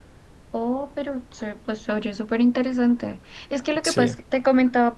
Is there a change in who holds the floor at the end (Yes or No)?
No